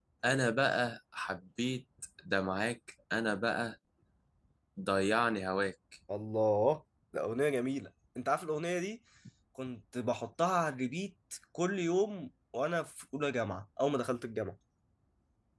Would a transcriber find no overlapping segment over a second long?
Yes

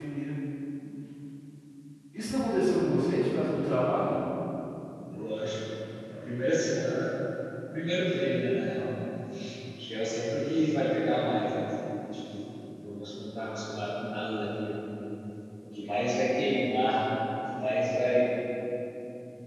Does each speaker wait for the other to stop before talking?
Yes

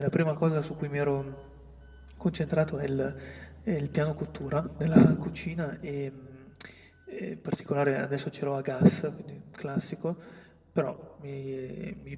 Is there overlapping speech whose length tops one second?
No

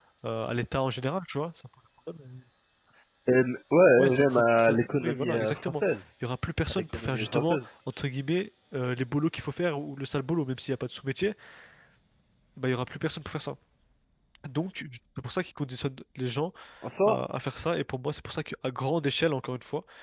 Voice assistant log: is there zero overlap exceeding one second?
No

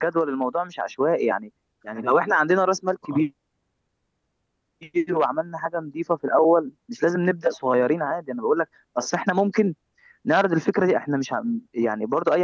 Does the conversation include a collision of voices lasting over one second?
No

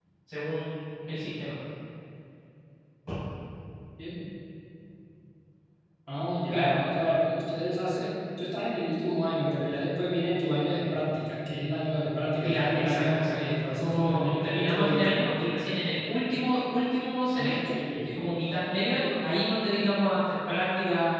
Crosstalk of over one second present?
Yes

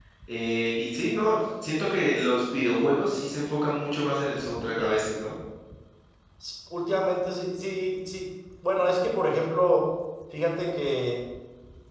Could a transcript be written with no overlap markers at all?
Yes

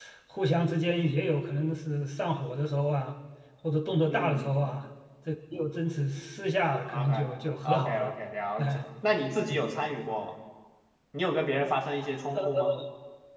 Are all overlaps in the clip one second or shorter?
Yes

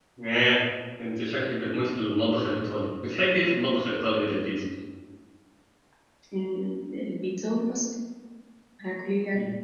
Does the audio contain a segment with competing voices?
No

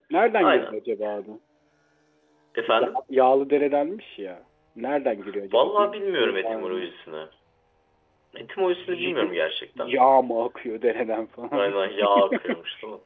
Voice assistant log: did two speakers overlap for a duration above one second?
Yes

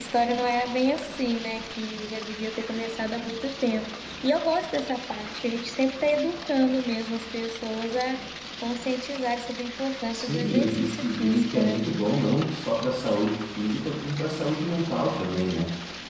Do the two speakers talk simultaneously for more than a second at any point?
Yes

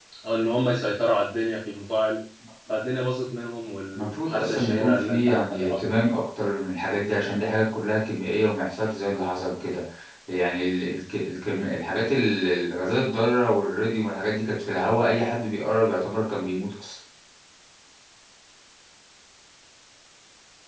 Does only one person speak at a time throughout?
No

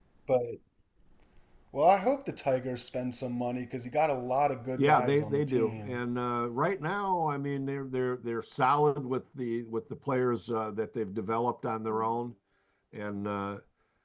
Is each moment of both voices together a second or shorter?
No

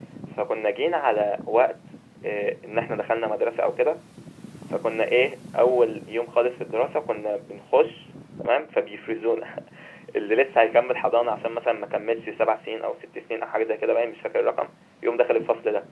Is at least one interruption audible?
No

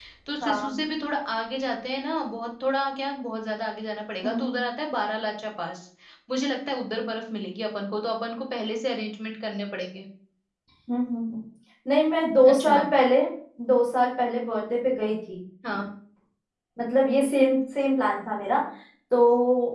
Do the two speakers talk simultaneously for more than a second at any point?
No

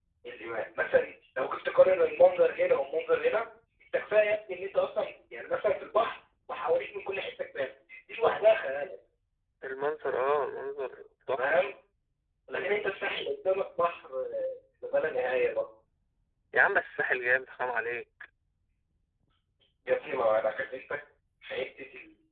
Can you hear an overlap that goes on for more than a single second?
No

